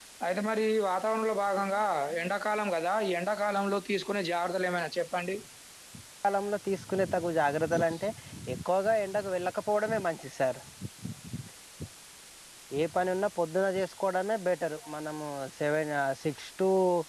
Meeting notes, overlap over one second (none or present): none